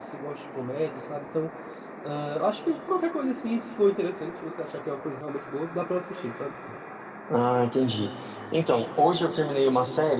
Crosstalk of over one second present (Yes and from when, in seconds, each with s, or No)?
No